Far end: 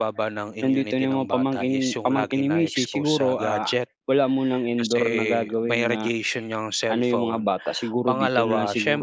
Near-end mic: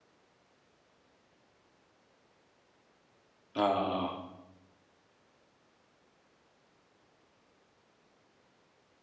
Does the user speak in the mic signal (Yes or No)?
Yes